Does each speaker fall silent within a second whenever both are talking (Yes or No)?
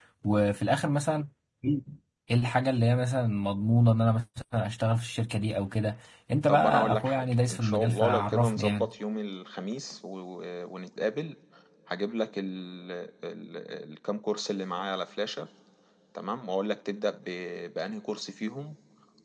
No